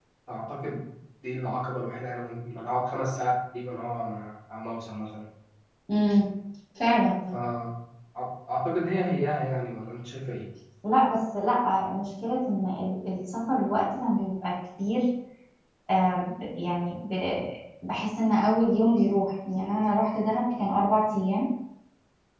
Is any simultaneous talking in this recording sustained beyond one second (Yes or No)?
No